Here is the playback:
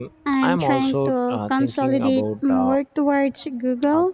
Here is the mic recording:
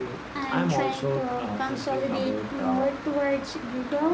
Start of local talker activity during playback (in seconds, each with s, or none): none